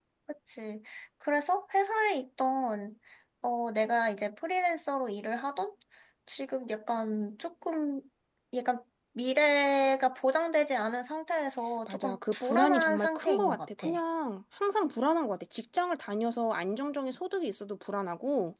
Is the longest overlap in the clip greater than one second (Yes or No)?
Yes